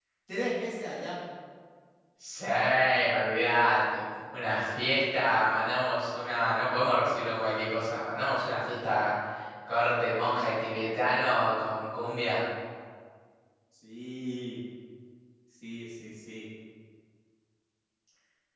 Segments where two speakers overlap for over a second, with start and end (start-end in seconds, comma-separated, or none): none